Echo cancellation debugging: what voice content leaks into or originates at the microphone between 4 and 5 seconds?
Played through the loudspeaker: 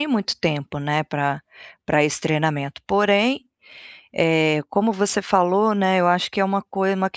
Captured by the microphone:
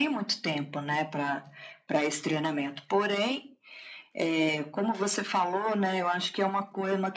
echo only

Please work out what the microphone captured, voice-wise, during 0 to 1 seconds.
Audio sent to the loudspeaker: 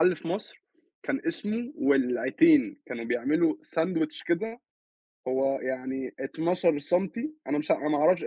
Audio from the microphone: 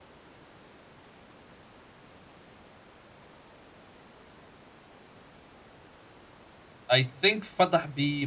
neither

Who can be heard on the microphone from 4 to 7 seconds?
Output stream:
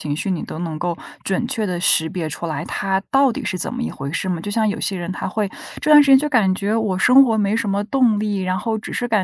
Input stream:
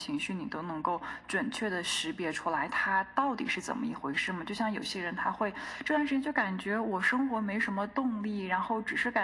echo only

